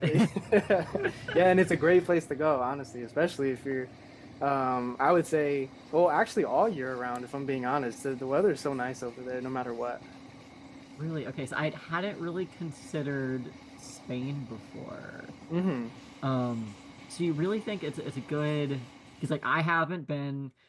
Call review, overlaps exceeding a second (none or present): none